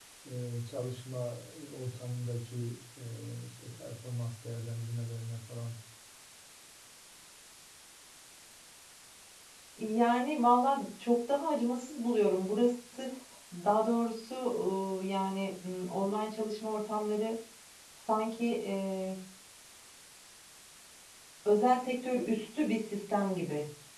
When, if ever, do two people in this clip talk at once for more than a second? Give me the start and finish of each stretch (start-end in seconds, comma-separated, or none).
none